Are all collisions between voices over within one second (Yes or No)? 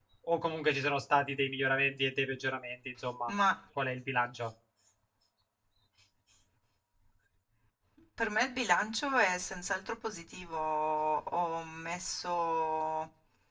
Yes